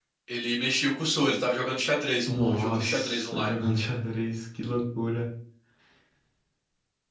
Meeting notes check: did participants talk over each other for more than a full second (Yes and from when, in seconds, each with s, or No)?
Yes, from 2.3 s